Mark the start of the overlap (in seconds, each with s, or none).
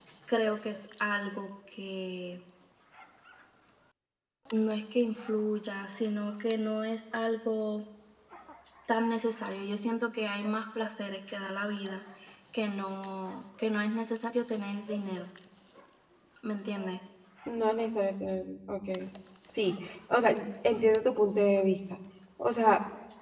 none